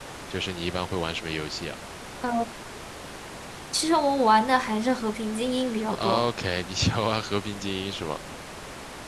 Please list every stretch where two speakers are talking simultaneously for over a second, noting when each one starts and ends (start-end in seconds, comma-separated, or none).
none